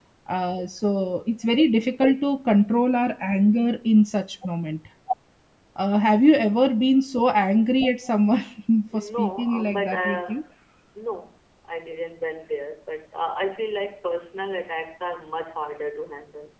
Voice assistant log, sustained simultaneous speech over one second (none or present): present